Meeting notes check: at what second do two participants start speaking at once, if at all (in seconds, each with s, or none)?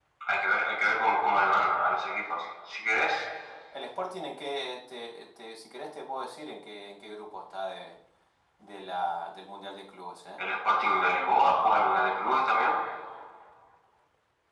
none